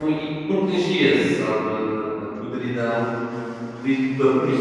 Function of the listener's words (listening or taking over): taking over